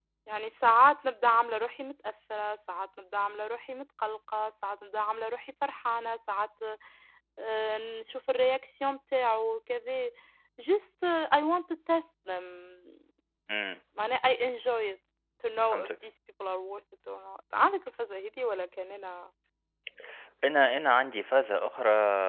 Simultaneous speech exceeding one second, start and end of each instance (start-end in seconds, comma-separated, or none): none